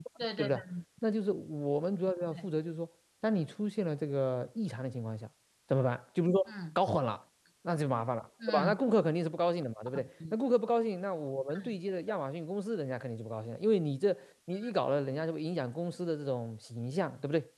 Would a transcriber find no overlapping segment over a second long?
Yes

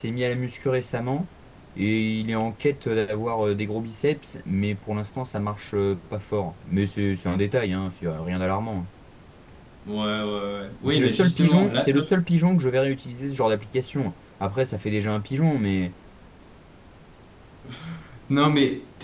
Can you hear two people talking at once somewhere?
Yes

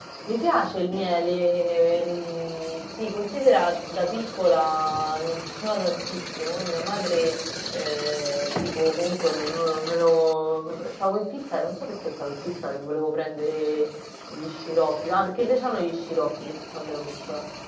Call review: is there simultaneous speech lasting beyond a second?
No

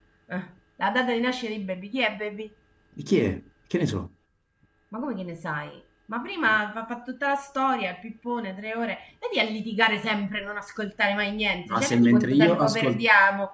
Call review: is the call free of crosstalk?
No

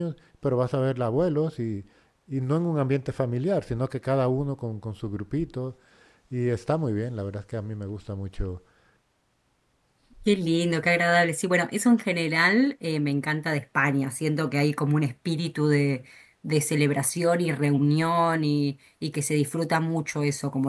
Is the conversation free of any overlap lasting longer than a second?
Yes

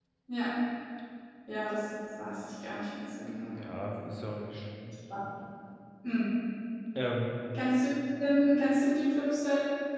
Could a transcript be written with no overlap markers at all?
Yes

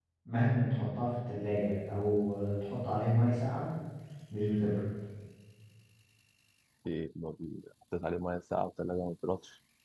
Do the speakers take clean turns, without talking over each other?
Yes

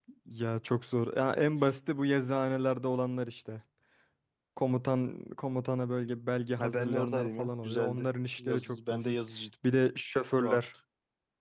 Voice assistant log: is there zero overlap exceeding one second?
No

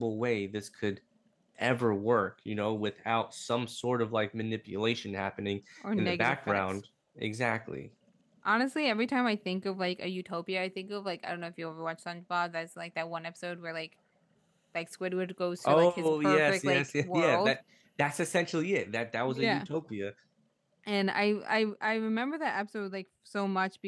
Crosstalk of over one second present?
Yes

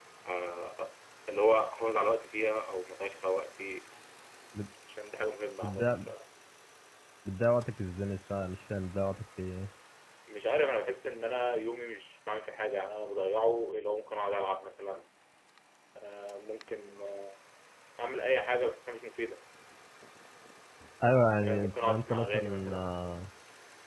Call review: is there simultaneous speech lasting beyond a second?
Yes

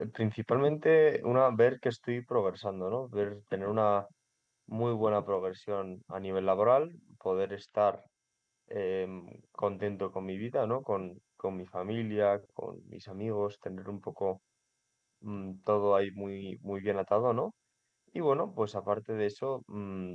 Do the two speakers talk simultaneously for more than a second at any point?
No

